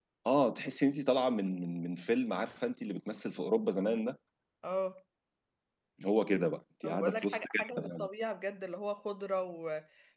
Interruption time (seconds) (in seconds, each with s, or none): 6.8 s